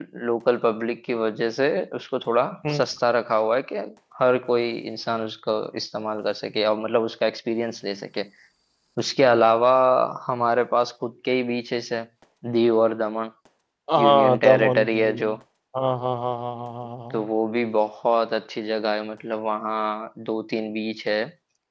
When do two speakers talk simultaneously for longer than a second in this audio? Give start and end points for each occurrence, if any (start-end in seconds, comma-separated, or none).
14.0-15.3